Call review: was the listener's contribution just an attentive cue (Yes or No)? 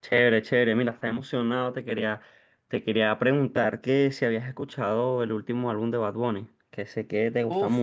Yes